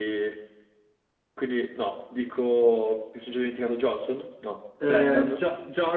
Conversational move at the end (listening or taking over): taking over